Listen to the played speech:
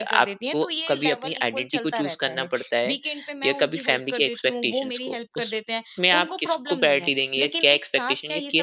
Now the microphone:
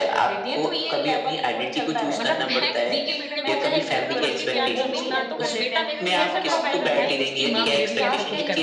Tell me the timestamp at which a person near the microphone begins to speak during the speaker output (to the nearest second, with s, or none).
2 s